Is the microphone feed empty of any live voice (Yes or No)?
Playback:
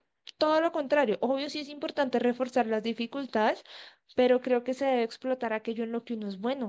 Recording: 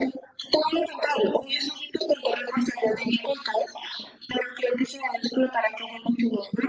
Yes